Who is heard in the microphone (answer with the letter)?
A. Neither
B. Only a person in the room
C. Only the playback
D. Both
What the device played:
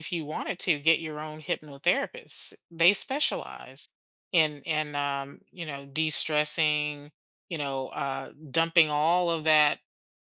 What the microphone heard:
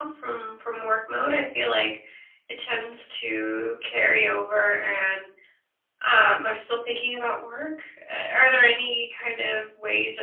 B